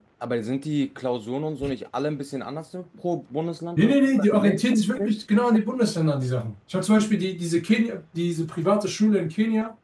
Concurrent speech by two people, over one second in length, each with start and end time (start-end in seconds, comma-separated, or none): 3.8-5.1